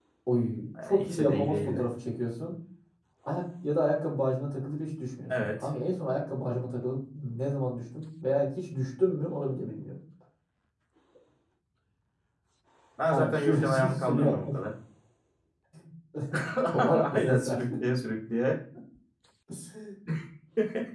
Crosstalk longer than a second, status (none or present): present